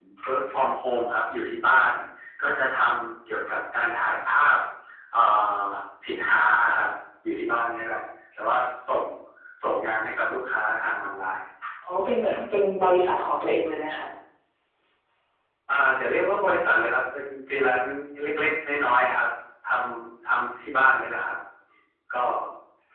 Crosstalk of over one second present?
No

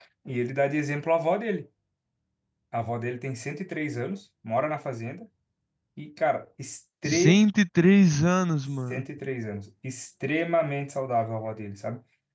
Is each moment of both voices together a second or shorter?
Yes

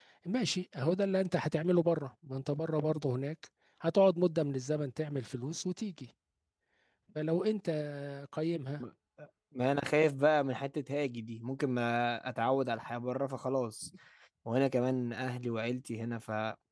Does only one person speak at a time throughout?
Yes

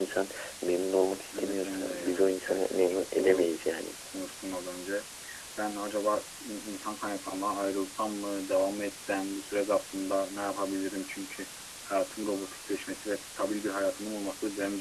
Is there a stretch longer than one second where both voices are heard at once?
Yes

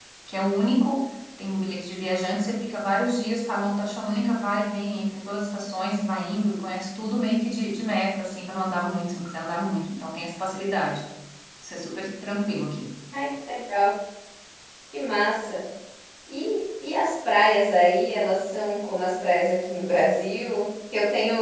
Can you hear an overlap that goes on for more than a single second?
No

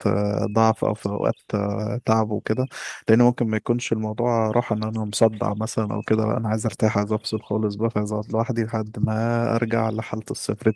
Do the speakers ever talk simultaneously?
No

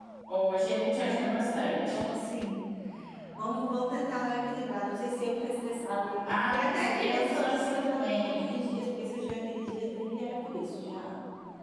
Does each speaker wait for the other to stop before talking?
No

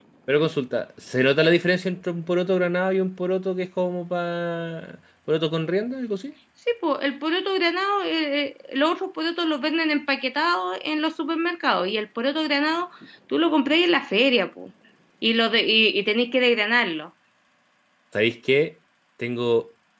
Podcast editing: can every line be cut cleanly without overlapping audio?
Yes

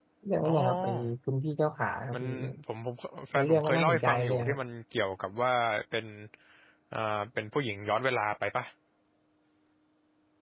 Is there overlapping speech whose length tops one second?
Yes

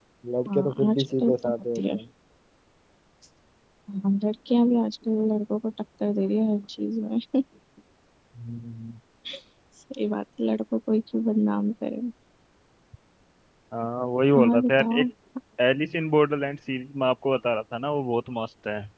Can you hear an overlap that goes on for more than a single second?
Yes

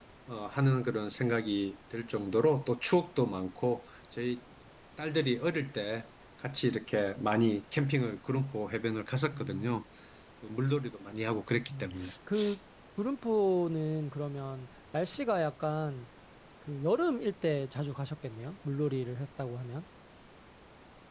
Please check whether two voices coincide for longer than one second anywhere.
No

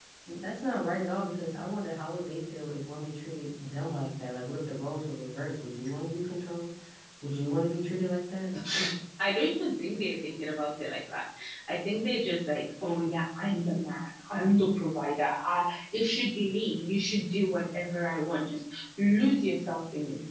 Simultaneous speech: No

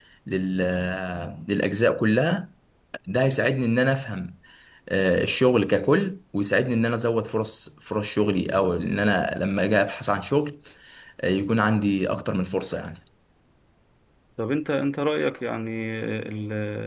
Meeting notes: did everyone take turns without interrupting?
Yes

